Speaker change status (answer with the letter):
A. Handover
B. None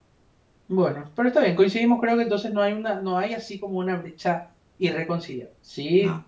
B